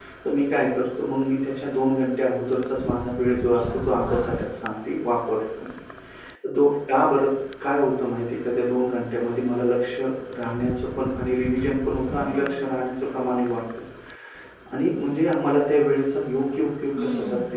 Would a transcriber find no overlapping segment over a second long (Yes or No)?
No